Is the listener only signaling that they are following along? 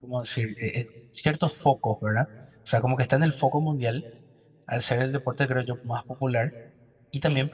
Yes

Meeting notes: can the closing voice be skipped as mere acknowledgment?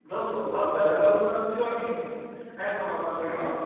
Yes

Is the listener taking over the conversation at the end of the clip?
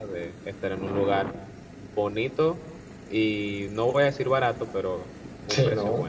Yes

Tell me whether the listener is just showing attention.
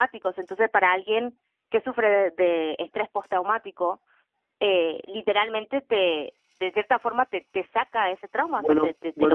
No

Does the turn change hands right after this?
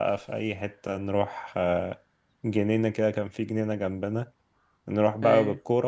No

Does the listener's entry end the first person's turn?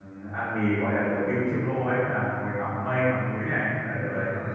Yes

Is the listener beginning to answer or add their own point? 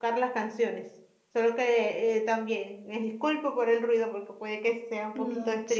Yes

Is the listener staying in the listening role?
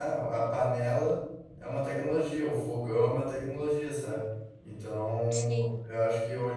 Yes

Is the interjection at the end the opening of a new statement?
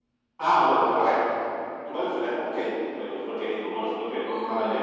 No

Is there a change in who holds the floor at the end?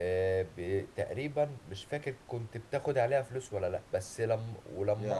No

